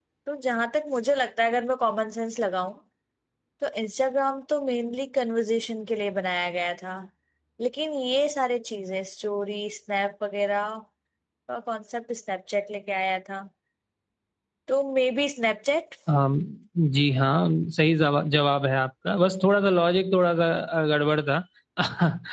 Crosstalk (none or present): none